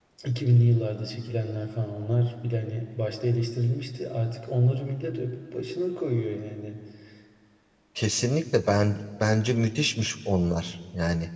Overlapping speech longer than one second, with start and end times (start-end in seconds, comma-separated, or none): none